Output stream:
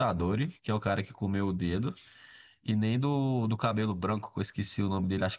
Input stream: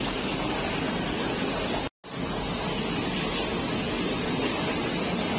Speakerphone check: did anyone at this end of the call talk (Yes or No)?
No